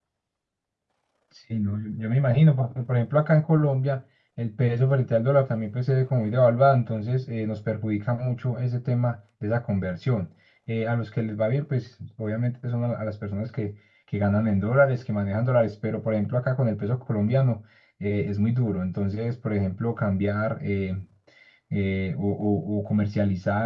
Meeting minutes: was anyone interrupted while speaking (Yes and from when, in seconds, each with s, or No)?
No